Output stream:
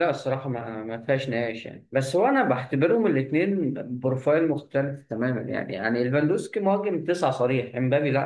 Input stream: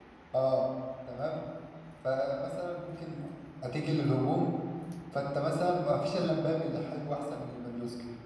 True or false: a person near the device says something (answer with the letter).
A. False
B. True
B